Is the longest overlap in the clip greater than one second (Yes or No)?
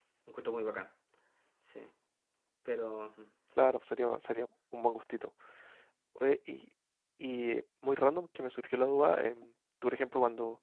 No